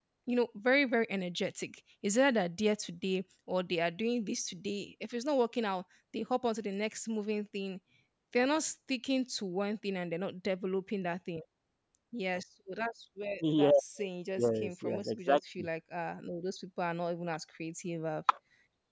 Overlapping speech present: Yes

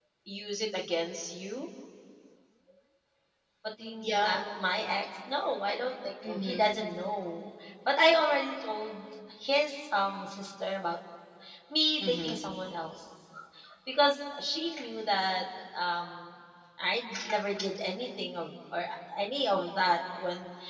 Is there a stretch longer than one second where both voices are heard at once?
No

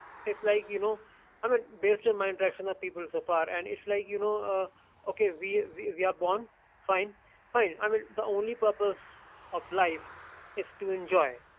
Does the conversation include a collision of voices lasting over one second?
No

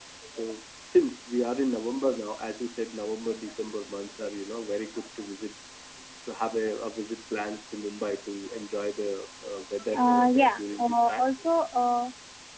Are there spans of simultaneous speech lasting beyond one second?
Yes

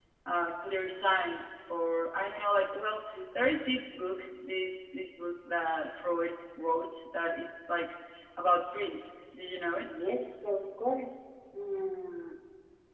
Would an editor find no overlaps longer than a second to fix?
Yes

